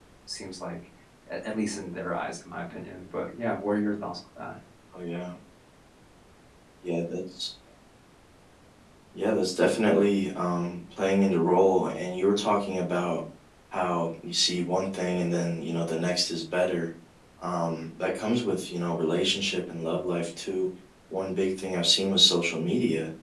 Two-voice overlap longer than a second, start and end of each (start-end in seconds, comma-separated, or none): none